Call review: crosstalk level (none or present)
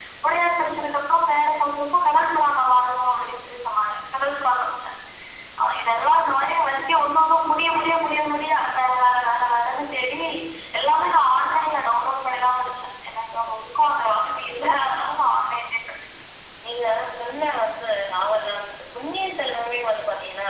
none